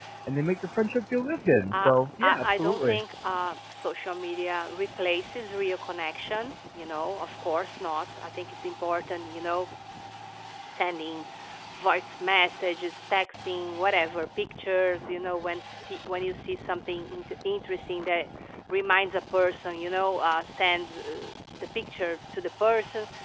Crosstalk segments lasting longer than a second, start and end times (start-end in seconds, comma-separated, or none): 1.7-3.0